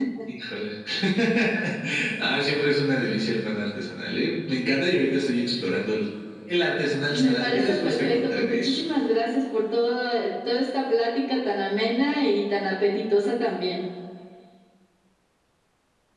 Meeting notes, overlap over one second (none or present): present